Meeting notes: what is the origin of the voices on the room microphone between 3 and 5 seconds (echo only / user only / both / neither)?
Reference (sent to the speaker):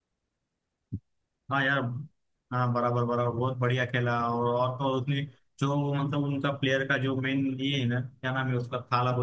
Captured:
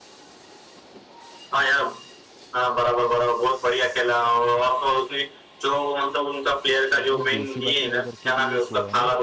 echo only